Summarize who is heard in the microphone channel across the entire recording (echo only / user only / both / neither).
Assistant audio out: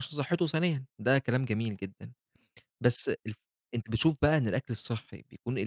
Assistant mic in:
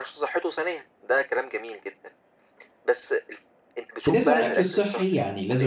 both